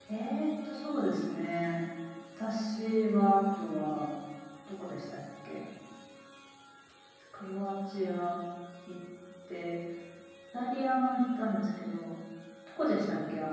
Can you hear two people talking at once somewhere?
No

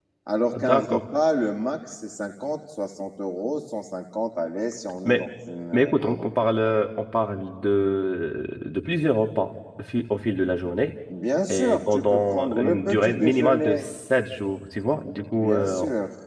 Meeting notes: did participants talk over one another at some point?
Yes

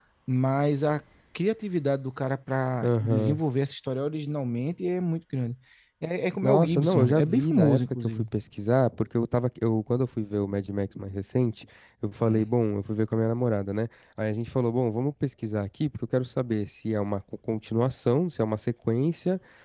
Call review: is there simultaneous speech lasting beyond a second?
Yes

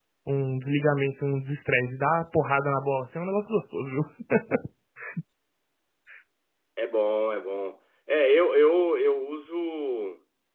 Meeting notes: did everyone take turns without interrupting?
Yes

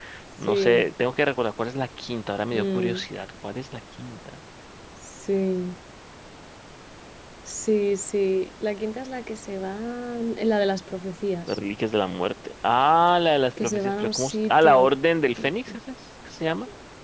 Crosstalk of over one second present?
Yes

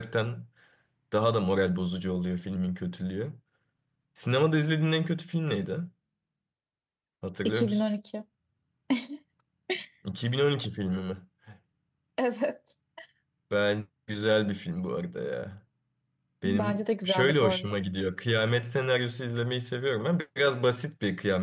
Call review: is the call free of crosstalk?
No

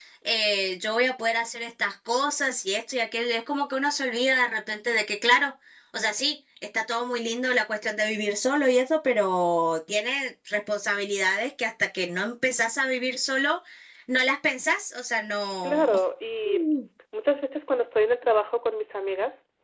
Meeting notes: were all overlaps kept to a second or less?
Yes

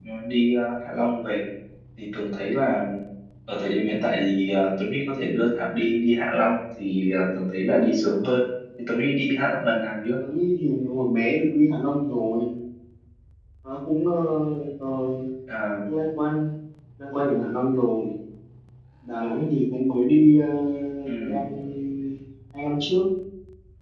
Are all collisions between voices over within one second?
Yes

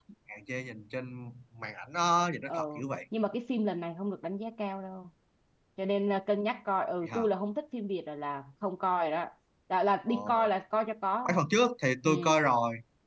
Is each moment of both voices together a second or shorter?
Yes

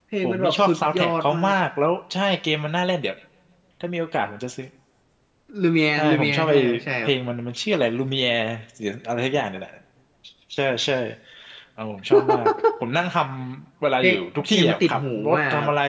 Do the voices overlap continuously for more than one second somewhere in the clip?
Yes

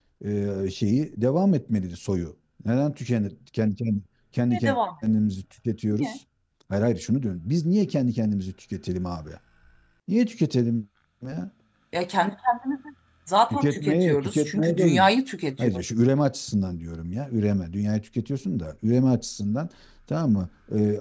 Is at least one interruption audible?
Yes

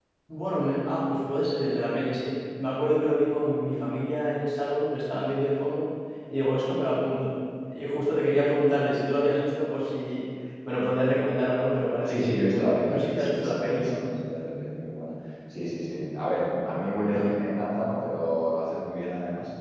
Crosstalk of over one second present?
Yes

